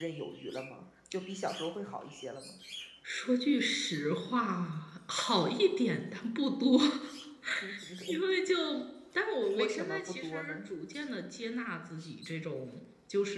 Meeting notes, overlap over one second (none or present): present